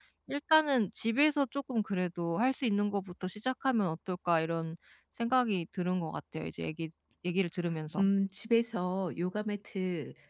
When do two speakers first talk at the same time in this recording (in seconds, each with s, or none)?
none